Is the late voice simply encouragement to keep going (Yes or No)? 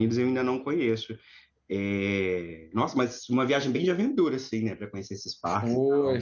No